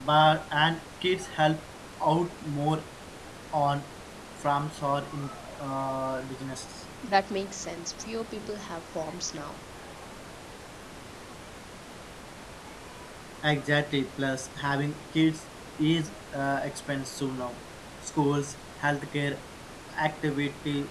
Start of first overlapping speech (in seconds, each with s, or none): none